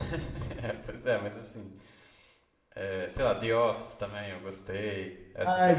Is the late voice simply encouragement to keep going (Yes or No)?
No